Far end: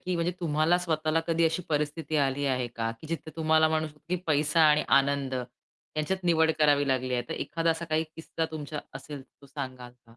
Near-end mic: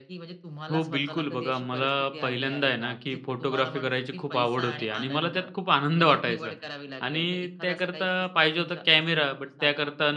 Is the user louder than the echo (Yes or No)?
Yes